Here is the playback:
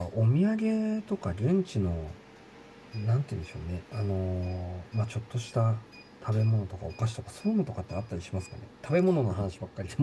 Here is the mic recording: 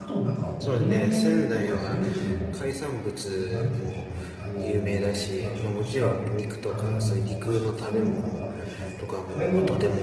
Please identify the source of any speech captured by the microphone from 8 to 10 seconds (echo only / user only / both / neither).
both